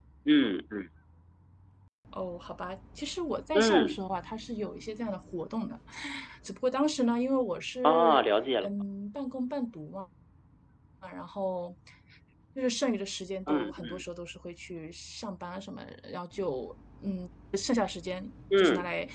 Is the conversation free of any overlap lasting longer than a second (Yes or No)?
Yes